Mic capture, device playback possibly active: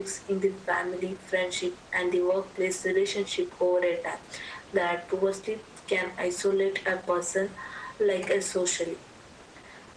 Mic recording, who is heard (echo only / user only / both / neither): echo only